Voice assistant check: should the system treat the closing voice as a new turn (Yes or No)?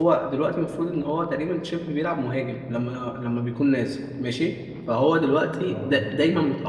No